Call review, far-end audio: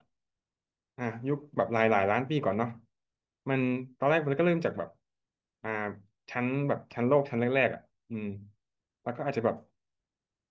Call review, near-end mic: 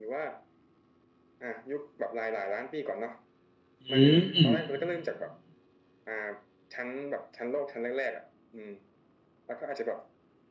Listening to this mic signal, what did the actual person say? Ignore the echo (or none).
อืม